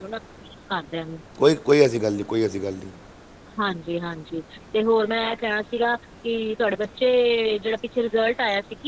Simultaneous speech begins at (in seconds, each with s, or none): none